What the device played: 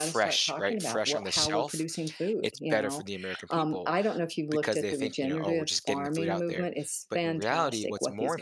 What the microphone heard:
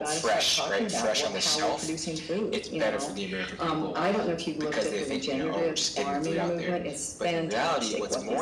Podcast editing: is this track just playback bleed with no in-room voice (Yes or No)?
Yes